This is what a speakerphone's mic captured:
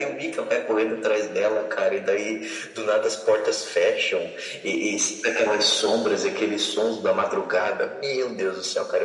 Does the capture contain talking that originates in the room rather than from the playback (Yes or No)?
No